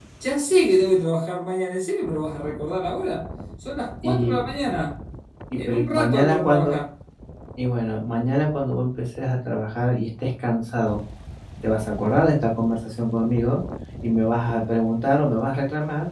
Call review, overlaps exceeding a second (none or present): present